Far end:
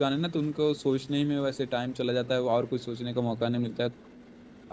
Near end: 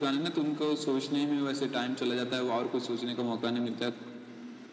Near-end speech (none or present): none